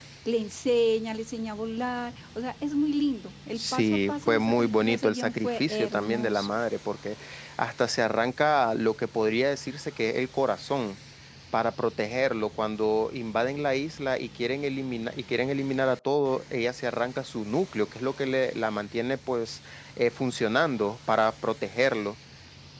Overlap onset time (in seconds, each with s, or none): 3.6 s